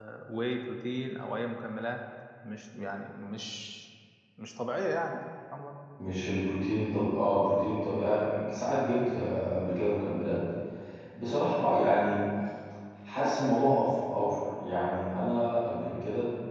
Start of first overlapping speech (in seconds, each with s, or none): none